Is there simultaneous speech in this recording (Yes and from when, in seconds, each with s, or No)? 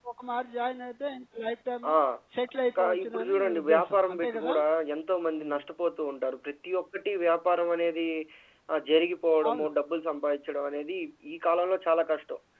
Yes, from 2.8 s